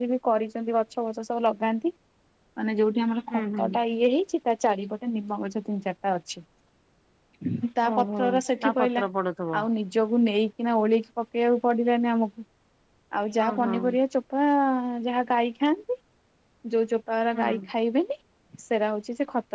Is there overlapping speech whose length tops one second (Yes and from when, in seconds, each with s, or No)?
No